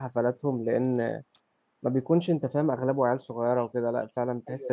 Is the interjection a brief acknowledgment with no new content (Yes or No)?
No